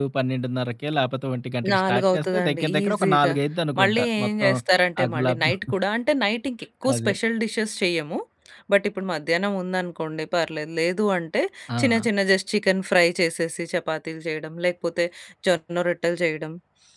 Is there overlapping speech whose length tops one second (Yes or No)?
Yes